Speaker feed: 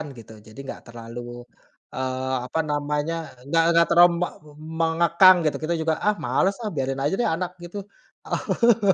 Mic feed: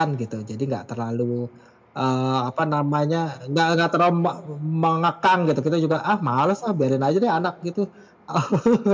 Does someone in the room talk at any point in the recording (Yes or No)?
No